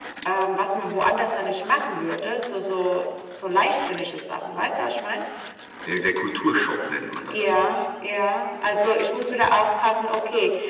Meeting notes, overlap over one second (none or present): none